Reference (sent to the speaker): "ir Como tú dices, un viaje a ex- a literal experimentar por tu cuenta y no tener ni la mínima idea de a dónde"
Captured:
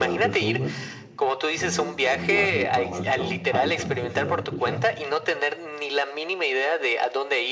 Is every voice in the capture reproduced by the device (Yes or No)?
No